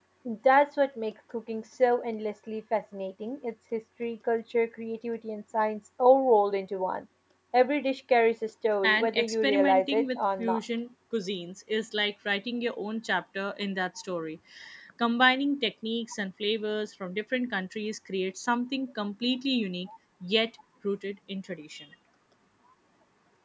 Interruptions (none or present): present